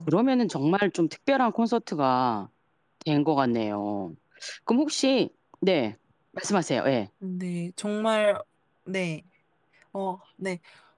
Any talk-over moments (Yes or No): No